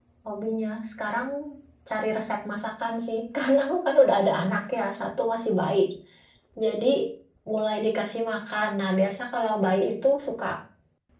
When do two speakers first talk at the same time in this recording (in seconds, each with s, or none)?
none